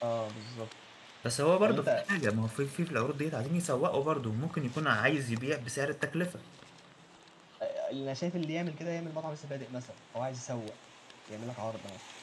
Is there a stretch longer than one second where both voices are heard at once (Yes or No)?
No